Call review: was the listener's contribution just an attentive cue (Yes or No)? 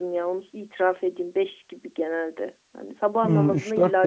No